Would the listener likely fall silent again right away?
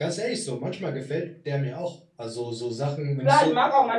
No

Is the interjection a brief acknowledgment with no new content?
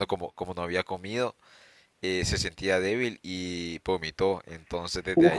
Yes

